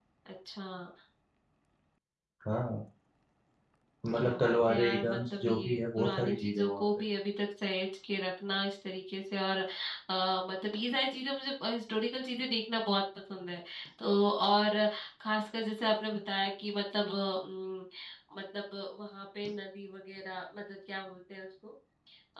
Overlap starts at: 4.2 s

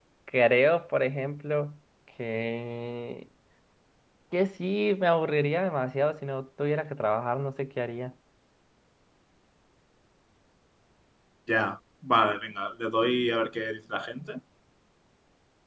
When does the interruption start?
none

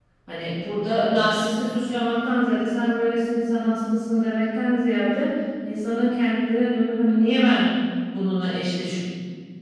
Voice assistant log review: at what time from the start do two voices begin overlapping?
none

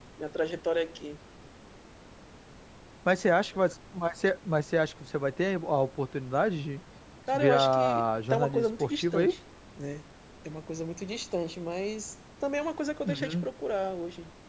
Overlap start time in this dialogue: 7.3 s

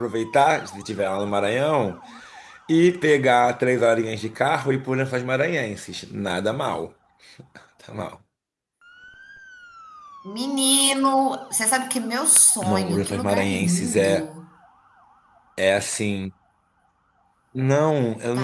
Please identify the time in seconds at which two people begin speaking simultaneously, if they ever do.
12.6 s

